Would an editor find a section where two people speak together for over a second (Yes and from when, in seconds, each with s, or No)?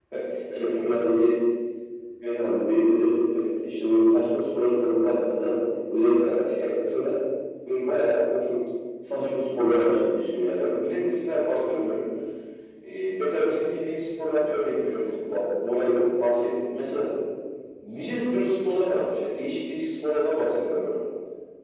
No